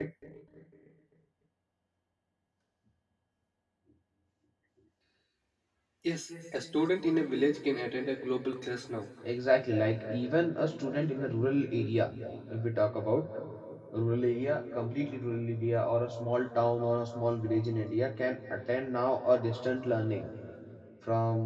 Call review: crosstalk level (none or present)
none